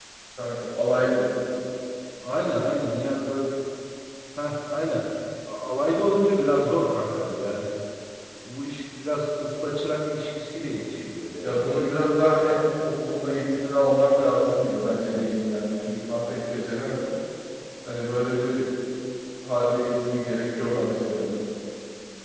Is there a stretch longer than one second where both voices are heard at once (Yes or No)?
No